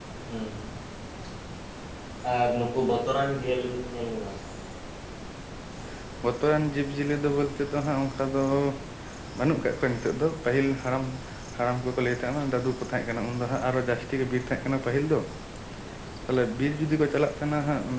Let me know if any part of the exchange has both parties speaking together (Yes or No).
No